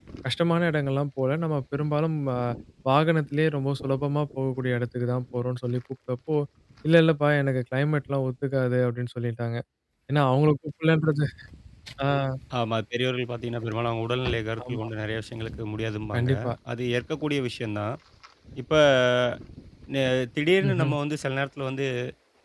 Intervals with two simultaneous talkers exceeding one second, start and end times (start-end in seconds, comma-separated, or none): none